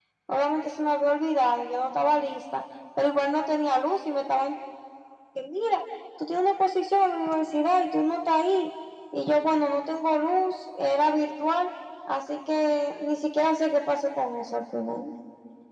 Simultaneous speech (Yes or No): No